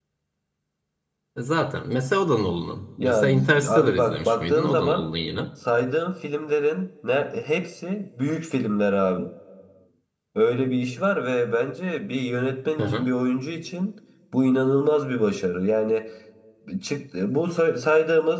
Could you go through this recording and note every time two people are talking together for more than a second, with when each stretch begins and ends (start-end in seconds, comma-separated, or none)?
3.0-5.1